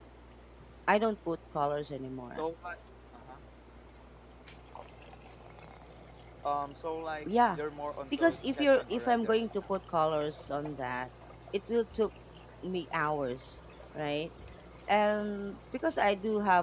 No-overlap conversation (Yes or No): No